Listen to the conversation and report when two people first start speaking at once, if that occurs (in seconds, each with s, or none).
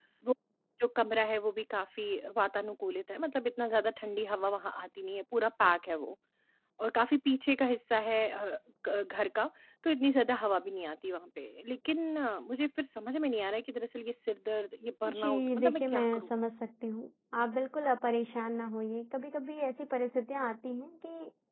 15.0 s